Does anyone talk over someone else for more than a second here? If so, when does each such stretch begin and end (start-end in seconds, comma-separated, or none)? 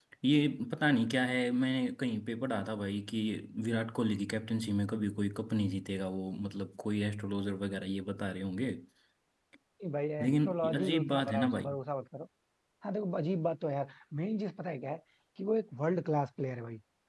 10.2-11.7